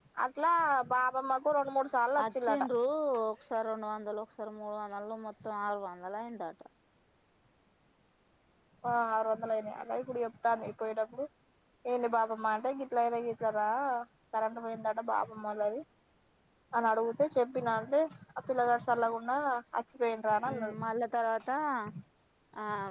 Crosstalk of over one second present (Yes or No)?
No